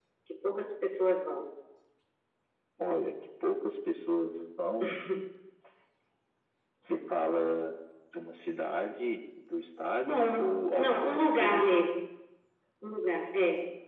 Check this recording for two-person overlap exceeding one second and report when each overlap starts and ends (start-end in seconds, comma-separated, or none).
10.1-11.7